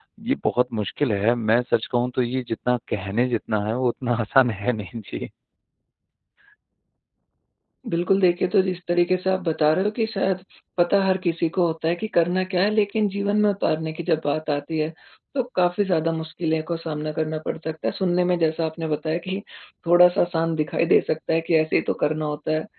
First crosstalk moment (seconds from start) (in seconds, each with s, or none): none